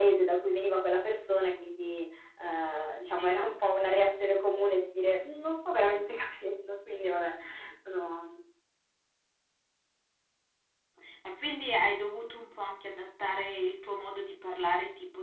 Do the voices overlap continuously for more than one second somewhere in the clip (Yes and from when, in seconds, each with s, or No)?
No